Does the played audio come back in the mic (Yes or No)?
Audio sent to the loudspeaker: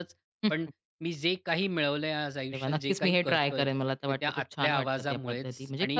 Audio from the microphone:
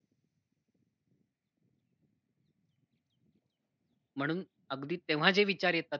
No